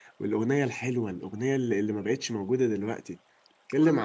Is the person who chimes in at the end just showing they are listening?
Yes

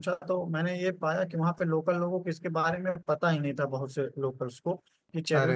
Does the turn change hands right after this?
No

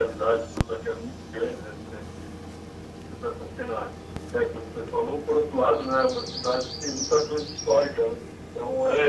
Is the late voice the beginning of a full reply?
Yes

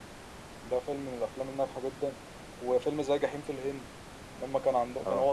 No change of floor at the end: No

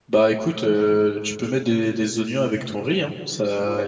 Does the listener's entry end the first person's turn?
Yes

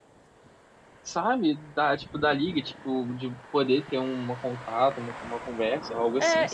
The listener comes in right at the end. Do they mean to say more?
Yes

